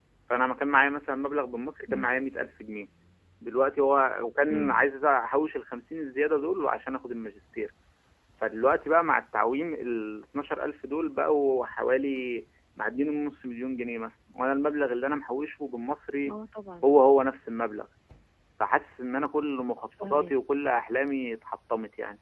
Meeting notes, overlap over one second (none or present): none